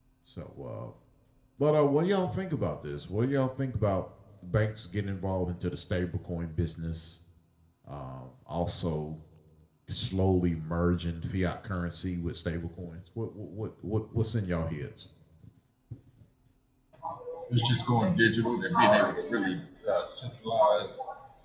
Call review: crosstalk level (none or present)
none